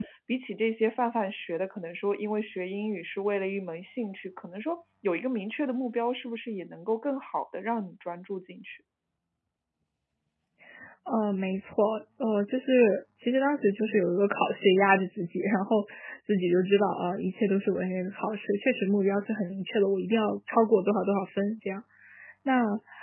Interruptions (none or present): none